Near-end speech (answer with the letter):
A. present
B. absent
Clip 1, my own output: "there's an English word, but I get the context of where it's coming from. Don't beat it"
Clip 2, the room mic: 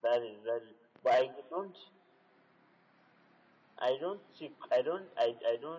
A